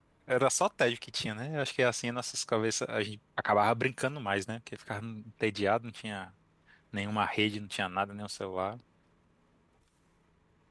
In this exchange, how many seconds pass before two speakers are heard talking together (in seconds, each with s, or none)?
none